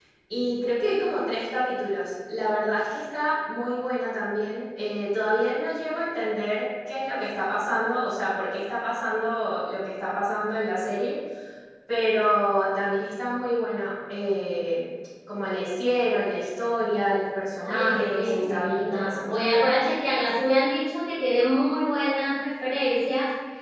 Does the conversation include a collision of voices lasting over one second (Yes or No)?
Yes